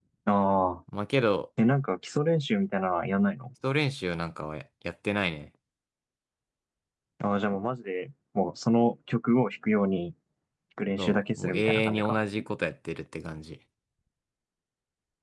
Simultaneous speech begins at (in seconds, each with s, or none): 11.0 s